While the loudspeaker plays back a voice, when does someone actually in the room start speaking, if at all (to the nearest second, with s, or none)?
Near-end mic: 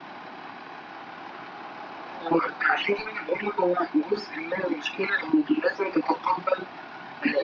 none